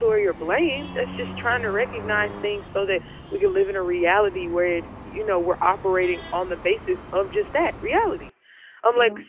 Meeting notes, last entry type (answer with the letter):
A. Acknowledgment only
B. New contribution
A